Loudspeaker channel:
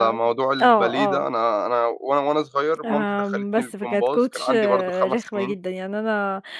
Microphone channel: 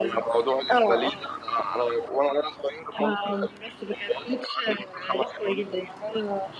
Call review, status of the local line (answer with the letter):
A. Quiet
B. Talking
A